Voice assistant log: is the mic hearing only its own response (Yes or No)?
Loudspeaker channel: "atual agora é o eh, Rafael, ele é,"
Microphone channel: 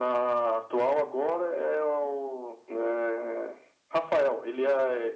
Yes